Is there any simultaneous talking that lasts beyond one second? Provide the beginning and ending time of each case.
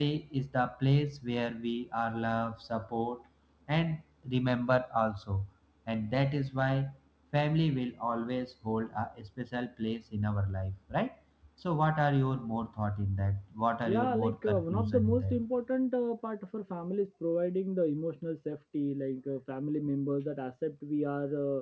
13.9-15.4

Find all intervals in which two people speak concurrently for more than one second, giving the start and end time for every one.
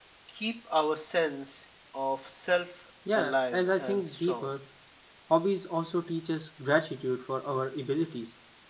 3.1-4.5

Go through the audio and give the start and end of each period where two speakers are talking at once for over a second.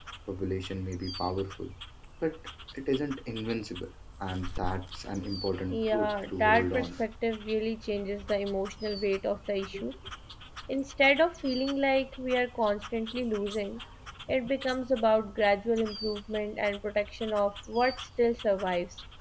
5.7-7.0

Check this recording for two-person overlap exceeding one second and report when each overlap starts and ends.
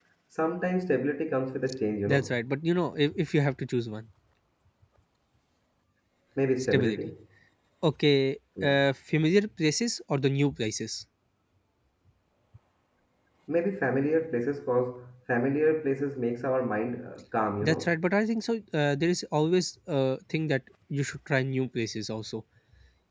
none

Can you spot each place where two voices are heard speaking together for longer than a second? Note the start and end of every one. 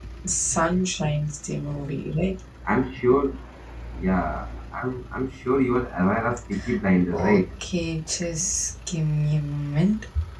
none

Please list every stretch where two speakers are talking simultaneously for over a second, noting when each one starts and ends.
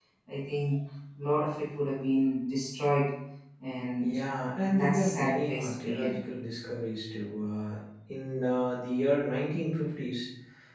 4.7-6.2

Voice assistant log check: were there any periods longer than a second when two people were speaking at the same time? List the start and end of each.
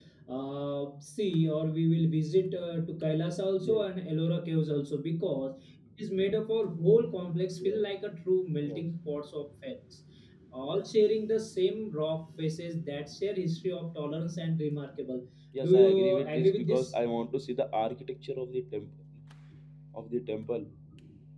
15.6-16.9

